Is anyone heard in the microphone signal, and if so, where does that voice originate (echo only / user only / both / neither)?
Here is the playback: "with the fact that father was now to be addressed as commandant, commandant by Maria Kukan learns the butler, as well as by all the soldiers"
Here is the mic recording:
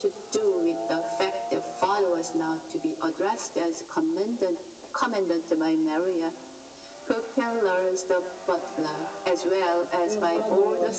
both